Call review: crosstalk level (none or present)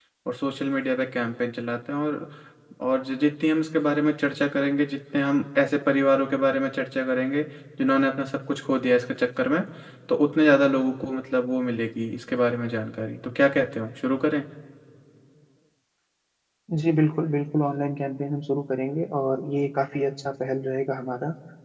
none